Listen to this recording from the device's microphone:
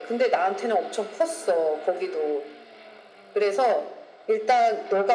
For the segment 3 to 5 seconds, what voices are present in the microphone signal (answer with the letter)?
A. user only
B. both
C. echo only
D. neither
C